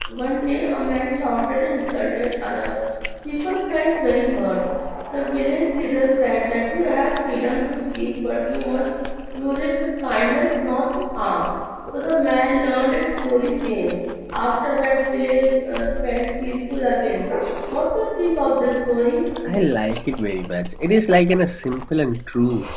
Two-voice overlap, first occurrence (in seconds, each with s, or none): none